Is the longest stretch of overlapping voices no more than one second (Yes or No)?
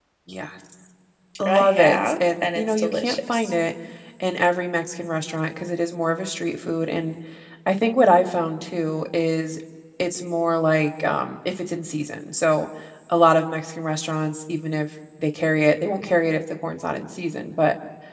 No